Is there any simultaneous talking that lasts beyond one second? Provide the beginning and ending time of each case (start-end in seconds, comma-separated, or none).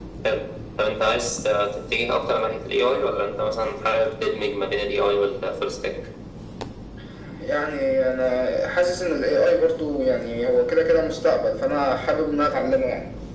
none